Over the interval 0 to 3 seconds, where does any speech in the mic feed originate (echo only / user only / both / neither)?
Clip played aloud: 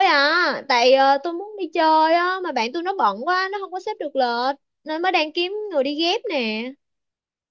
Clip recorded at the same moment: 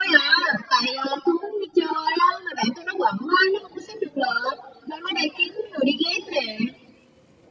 echo only